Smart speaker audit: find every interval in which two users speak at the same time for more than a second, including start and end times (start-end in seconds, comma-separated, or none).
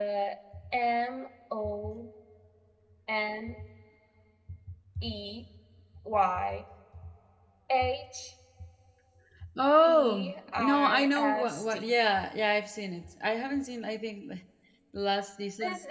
9.8-11.9